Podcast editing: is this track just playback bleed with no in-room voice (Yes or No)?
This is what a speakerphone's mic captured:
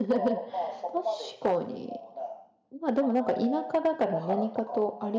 No